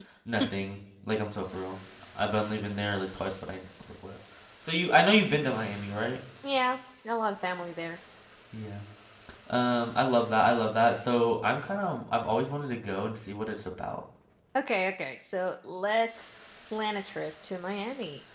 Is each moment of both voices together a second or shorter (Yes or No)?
Yes